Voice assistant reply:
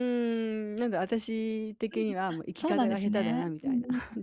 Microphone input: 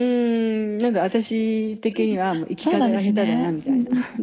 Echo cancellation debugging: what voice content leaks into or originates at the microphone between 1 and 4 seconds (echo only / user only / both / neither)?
echo only